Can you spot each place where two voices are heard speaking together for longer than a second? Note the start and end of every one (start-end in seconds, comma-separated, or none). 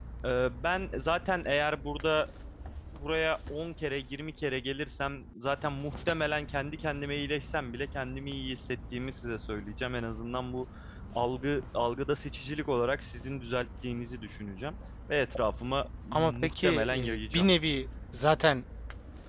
16.1-17.5